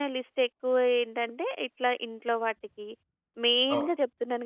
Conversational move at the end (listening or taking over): listening